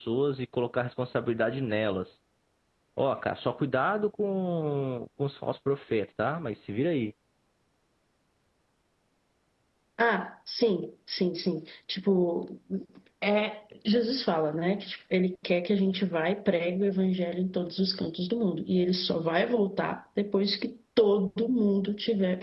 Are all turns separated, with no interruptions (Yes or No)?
Yes